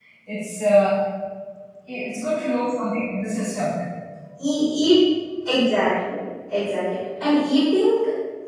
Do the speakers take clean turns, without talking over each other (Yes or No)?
Yes